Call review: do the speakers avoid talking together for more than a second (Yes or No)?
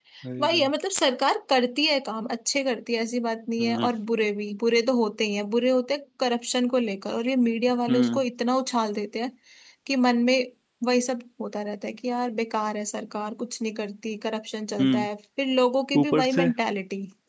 Yes